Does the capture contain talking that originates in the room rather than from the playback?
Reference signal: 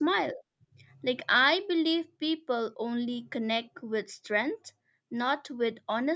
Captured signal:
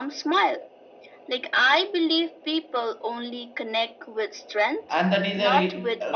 Yes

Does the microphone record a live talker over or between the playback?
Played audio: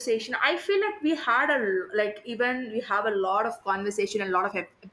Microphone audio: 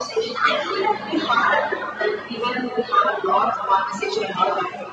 No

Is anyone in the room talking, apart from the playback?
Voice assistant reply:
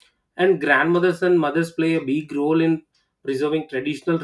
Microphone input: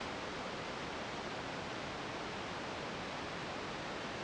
No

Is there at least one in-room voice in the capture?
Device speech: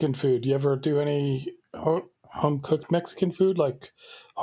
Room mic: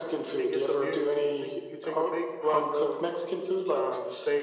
Yes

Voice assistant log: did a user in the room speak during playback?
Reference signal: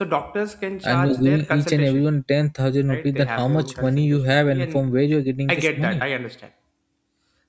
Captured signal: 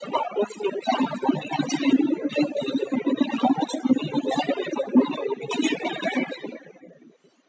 No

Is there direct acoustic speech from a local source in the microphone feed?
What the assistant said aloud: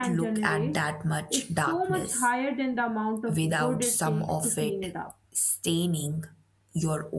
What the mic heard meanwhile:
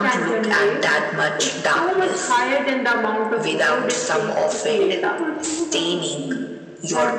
Yes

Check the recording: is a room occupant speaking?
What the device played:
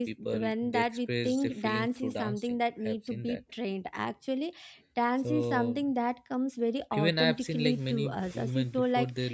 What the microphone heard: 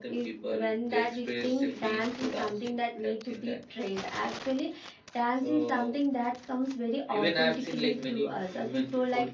No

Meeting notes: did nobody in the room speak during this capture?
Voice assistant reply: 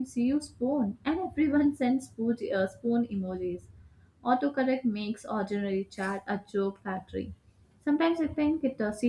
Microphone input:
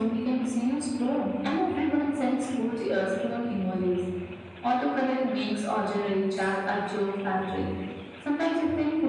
Yes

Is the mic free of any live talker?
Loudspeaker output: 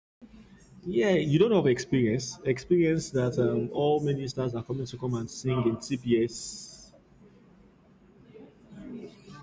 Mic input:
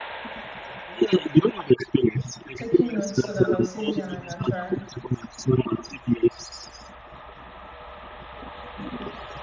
No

